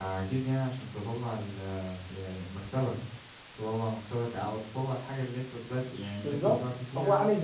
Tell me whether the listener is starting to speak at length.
Yes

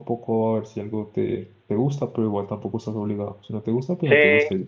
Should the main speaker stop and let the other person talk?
Yes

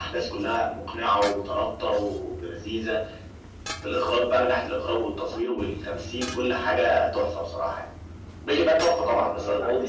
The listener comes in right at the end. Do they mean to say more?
Yes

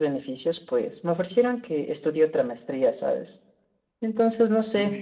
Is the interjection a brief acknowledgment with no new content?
Yes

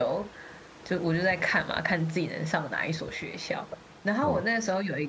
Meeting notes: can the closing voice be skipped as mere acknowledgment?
Yes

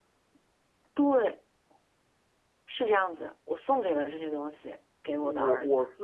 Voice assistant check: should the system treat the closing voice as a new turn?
Yes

